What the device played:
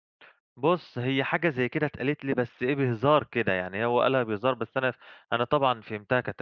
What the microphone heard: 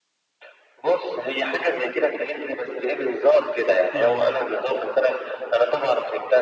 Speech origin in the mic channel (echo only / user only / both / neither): both